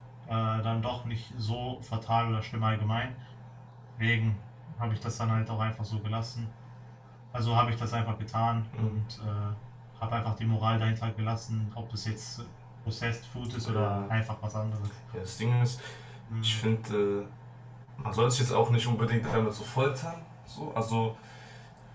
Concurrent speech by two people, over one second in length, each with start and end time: none

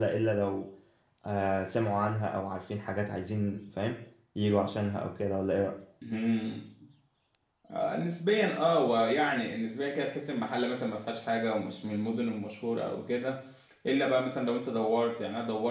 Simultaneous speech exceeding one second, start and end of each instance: none

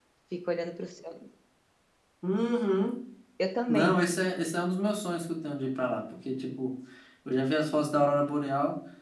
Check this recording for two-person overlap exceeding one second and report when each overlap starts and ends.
none

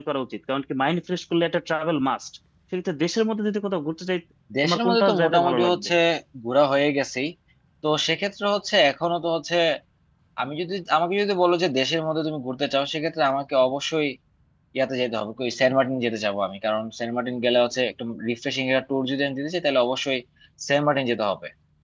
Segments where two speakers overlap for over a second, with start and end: 4.6-5.9

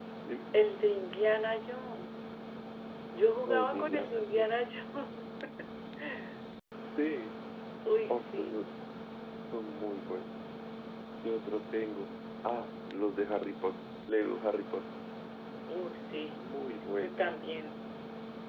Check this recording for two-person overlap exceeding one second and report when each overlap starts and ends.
3.5-4.7

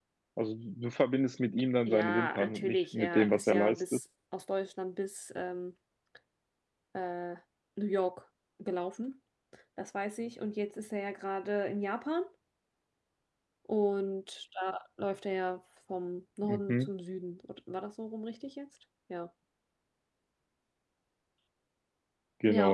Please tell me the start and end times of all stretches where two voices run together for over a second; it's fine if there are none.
1.9-4.0

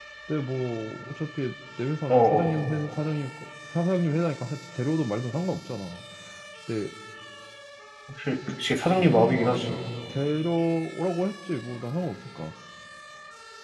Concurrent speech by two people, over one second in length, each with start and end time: none

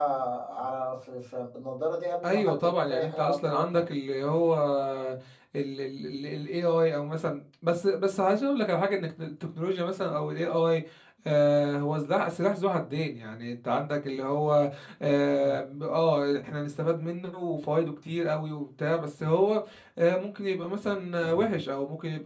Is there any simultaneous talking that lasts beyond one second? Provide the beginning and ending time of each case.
2.2-3.8

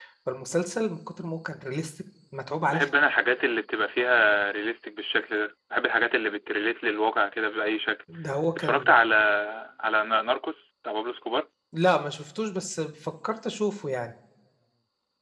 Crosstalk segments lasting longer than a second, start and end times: none

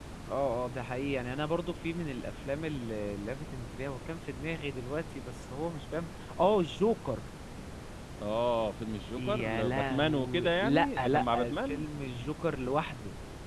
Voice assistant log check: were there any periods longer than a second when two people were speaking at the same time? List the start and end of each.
9.2-11.8

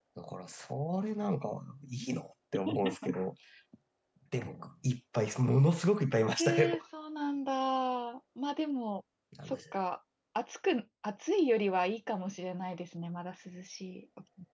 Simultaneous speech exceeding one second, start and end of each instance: none

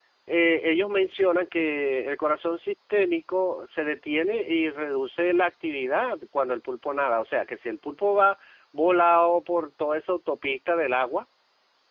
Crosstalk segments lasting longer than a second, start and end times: none

